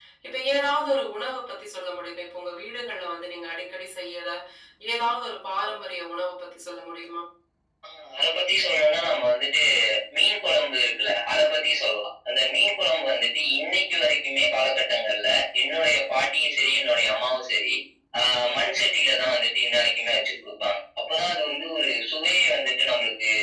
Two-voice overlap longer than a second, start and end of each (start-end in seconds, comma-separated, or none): none